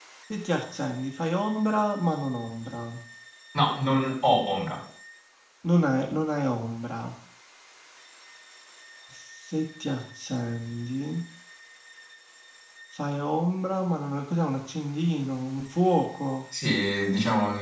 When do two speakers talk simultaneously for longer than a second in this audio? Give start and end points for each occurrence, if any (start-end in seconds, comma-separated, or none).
none